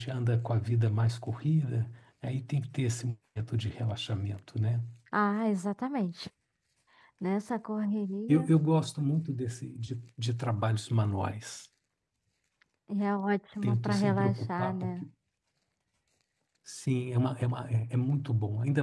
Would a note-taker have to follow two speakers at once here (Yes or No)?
Yes